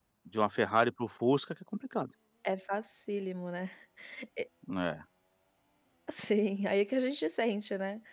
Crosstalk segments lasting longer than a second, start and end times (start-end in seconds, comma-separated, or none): none